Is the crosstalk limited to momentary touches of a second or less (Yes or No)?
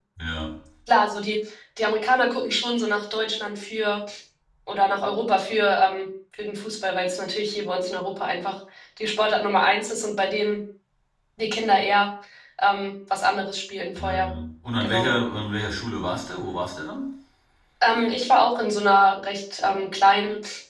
Yes